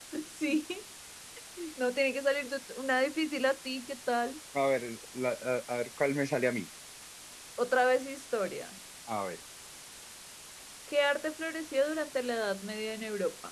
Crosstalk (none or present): none